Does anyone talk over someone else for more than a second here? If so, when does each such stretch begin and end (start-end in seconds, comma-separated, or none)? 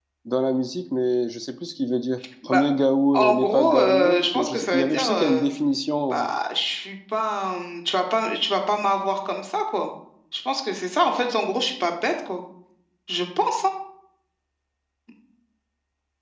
3.1-5.4